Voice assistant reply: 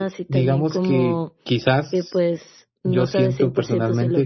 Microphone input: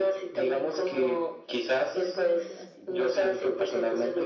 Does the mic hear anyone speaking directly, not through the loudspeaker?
Yes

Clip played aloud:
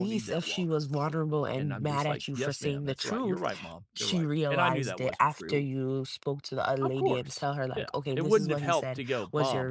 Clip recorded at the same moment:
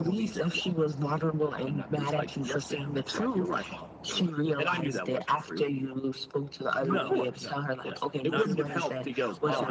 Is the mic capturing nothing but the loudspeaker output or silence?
No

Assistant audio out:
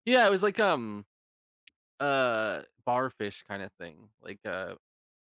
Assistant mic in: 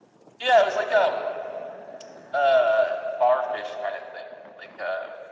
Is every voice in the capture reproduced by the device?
Yes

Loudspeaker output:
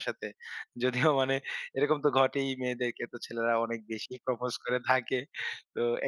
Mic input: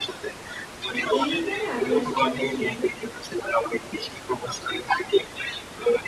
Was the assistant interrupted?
Yes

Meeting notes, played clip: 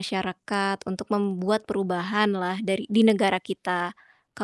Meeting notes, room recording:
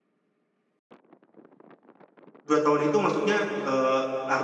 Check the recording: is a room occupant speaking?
Yes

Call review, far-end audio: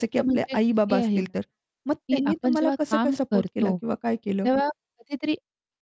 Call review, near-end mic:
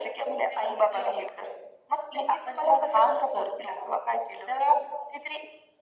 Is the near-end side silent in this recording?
Yes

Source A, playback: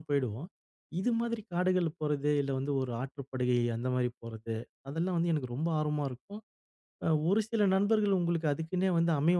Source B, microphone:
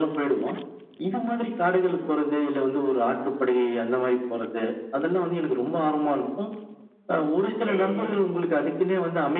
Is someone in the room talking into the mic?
Yes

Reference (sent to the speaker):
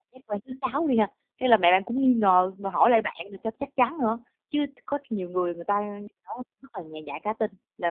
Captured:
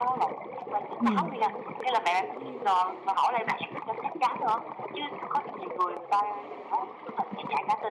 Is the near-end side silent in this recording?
No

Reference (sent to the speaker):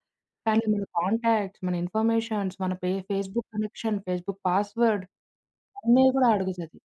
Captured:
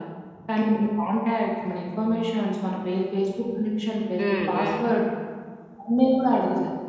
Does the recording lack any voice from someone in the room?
No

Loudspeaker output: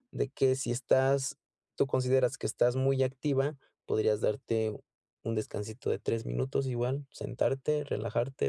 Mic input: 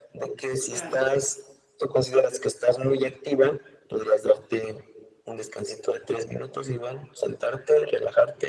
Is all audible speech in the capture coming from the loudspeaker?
No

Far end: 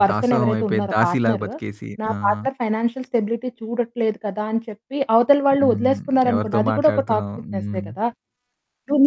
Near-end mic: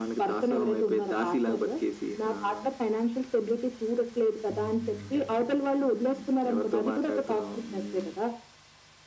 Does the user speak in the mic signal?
Yes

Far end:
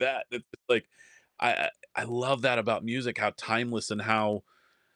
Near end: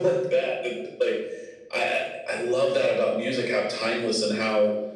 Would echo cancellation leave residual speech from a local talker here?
No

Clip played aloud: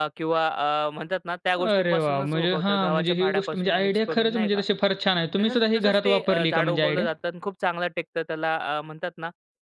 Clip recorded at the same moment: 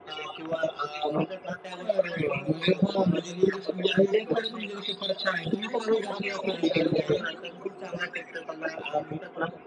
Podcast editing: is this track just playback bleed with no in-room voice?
Yes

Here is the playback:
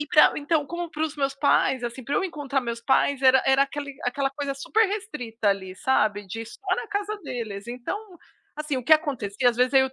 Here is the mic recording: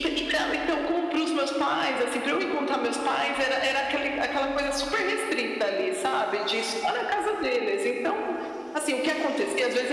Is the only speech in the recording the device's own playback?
Yes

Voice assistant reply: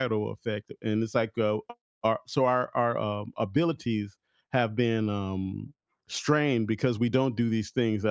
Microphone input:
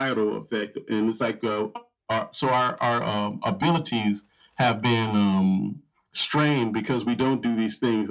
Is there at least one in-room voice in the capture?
No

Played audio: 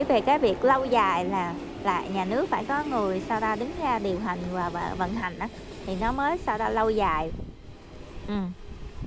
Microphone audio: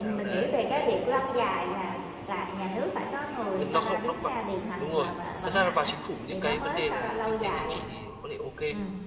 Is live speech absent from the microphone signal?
No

